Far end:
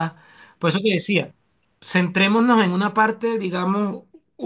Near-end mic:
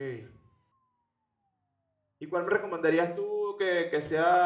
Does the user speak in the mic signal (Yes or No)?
Yes